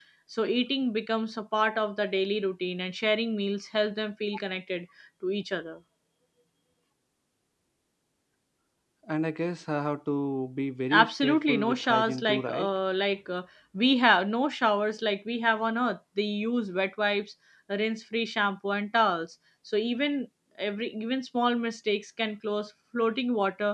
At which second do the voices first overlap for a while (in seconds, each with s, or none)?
10.9 s